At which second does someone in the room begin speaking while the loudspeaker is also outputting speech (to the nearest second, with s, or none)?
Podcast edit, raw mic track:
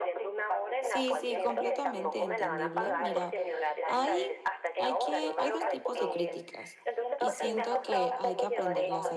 1 s